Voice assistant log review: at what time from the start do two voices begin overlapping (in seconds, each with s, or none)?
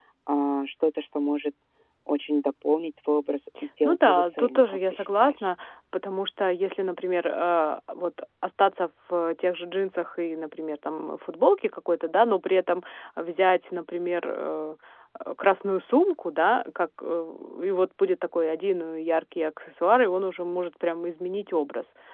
3.8 s